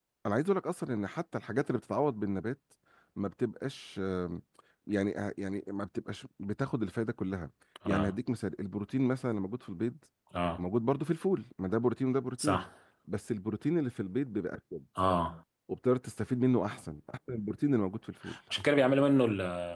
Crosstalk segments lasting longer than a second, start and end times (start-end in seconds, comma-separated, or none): none